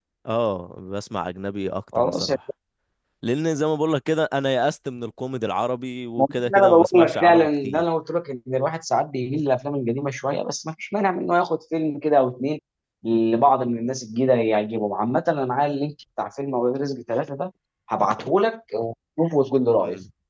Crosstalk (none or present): present